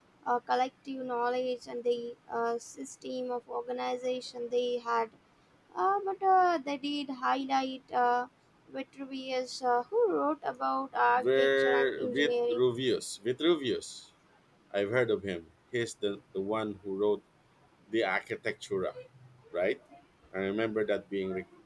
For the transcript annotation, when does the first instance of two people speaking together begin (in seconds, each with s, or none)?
11.2 s